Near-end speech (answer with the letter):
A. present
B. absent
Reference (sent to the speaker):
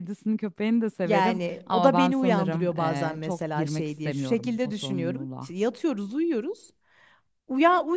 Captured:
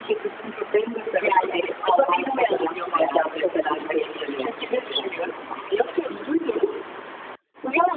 B